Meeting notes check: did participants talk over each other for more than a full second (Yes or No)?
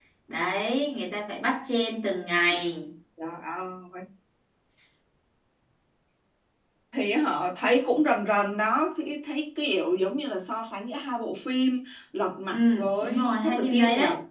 Yes